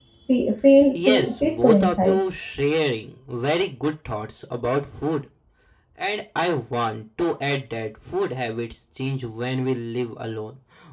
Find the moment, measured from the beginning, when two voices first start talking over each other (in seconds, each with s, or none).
0.9 s